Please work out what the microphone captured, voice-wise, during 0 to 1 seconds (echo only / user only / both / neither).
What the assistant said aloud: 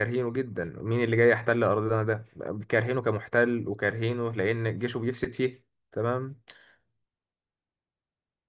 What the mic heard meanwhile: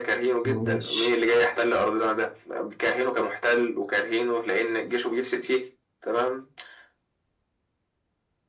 both